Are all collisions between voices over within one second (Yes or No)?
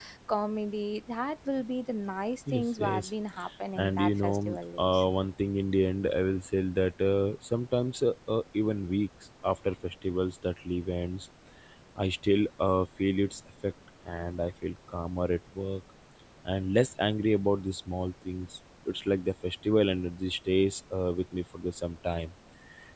No